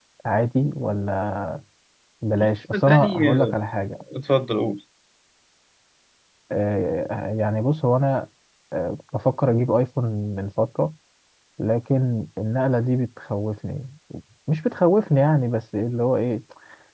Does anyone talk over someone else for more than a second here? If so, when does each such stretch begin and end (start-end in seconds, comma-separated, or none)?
2.3-3.5